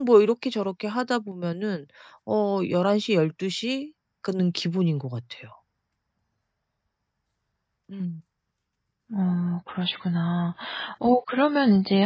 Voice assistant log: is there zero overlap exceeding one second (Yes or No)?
Yes